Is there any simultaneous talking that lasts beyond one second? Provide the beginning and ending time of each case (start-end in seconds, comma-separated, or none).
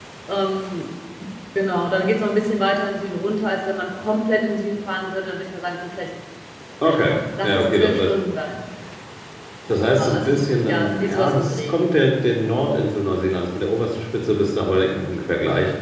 6.8-8.1, 10.0-11.8